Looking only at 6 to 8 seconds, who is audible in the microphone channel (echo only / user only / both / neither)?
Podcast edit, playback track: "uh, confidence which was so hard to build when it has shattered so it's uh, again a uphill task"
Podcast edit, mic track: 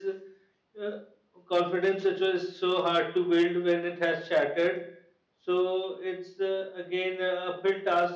echo only